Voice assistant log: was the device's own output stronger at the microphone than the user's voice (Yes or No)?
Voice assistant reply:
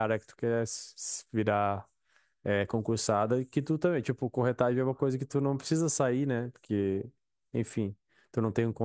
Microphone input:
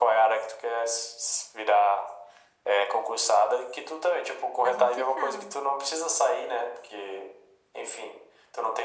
Yes